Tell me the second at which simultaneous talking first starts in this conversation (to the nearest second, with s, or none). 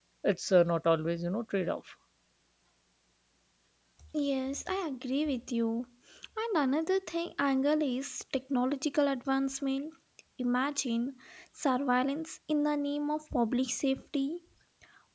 none